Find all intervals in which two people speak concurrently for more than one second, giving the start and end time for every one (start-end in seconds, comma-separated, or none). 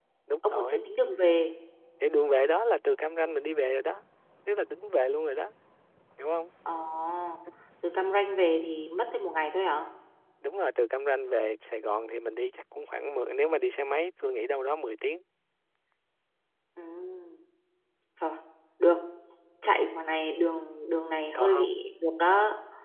none